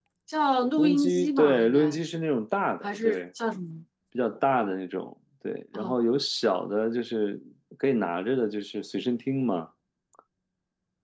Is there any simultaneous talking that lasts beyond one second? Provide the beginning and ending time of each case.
0.8-2.0

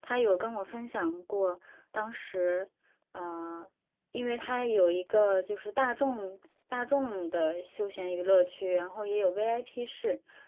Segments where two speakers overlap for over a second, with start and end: none

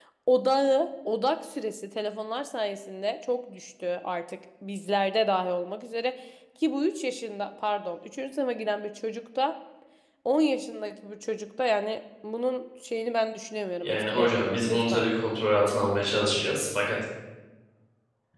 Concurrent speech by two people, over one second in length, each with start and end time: 13.8-15.0

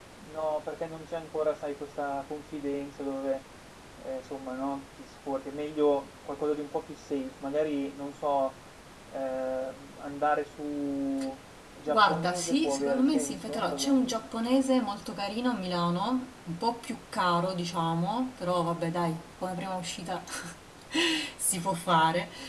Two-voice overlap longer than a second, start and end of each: 11.9-14.1

